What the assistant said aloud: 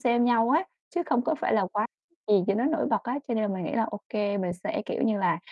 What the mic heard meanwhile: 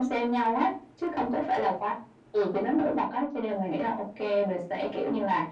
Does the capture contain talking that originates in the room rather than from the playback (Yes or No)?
No